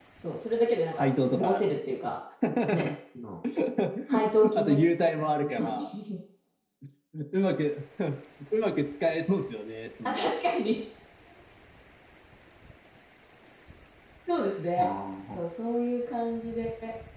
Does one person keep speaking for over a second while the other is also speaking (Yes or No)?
Yes